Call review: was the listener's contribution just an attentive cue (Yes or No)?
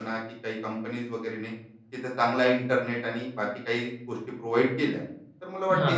Yes